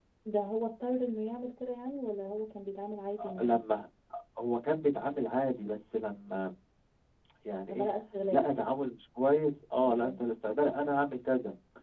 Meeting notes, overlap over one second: none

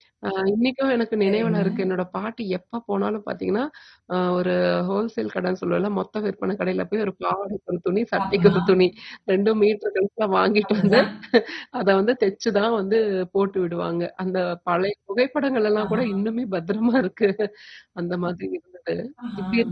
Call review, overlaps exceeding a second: none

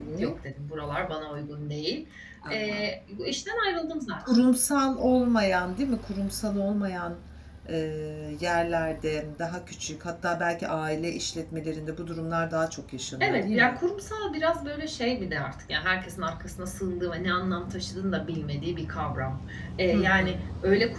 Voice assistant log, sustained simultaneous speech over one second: none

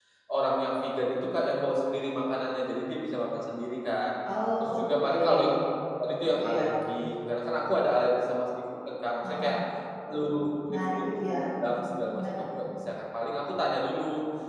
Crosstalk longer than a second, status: present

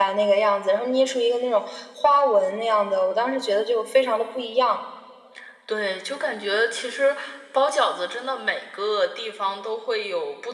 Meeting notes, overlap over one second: none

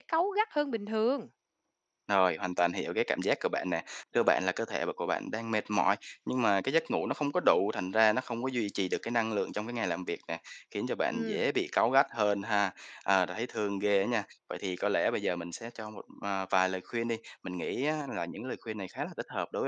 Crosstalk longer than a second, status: none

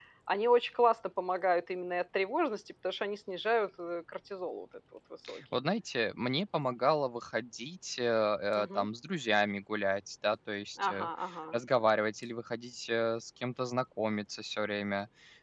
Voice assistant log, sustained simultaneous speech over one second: none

